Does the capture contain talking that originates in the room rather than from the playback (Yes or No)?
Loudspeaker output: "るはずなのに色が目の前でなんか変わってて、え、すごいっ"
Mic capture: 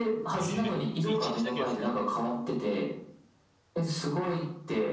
Yes